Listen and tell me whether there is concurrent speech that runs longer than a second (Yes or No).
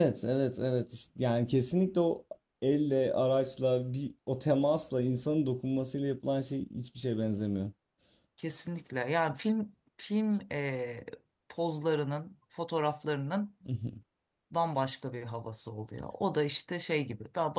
No